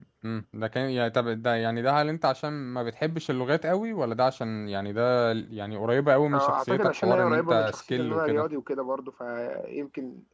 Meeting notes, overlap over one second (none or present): present